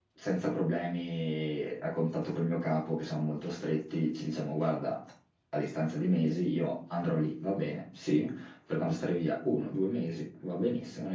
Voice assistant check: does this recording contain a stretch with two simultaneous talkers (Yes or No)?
No